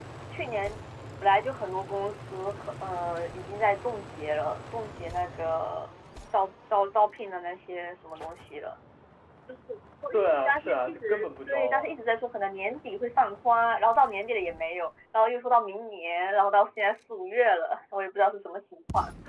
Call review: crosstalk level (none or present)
present